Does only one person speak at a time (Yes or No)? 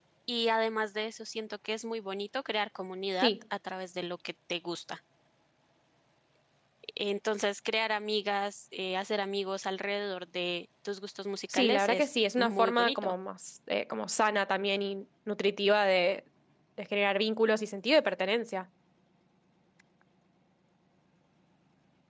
No